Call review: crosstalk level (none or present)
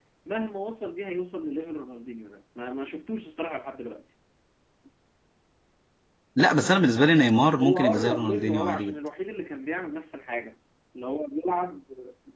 present